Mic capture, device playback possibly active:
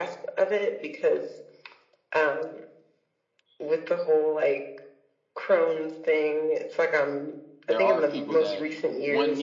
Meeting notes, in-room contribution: present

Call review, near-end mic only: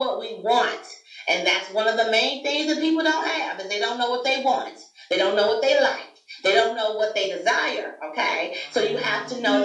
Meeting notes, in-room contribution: present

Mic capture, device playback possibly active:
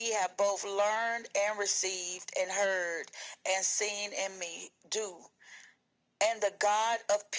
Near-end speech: none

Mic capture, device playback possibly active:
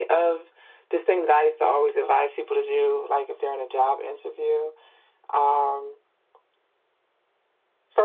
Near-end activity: none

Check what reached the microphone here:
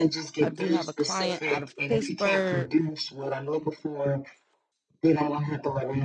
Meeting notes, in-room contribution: present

